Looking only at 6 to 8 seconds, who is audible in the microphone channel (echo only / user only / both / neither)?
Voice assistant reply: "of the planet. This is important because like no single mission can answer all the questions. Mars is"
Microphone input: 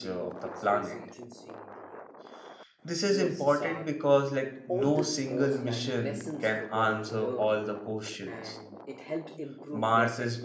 both